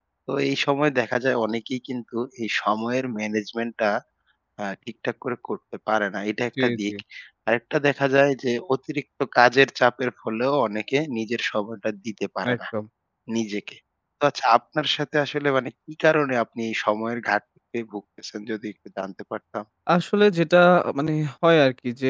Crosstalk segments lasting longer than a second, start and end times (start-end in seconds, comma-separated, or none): none